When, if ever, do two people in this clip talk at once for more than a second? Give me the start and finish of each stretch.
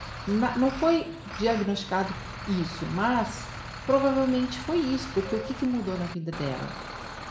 none

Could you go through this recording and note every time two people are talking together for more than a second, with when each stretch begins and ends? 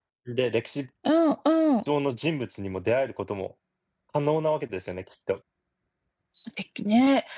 none

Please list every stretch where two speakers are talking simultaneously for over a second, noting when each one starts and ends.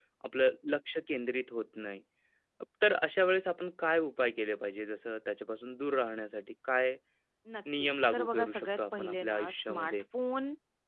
7.8-10.0

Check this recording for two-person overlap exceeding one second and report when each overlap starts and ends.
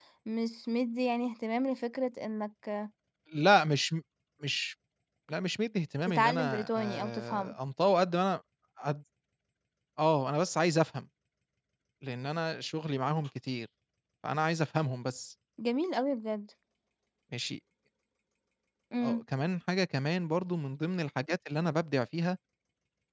6.1-7.5

